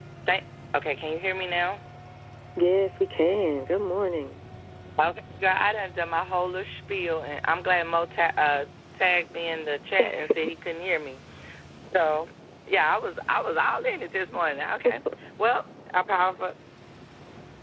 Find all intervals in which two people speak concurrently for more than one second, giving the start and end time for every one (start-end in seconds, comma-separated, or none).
none